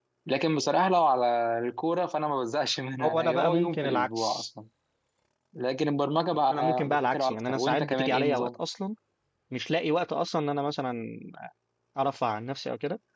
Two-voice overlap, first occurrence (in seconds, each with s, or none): 3.0 s